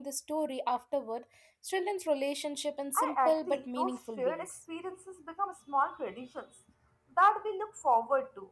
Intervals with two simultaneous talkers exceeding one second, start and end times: 3.0-4.5

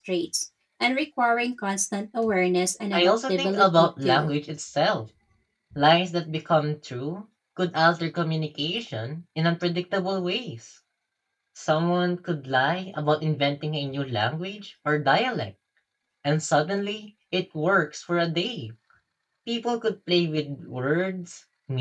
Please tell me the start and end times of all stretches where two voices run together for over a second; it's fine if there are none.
2.9-4.3

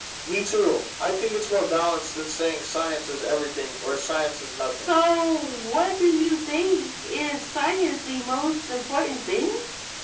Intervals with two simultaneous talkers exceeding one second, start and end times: none

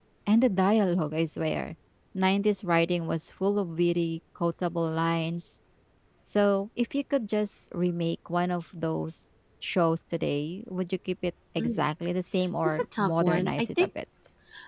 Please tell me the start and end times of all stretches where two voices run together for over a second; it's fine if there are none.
12.6-13.9

